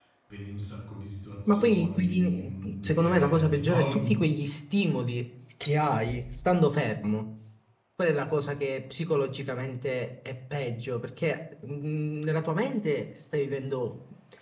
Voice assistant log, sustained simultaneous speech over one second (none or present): present